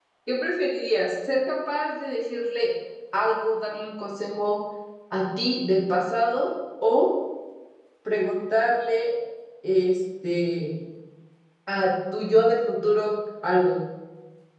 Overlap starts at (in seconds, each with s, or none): none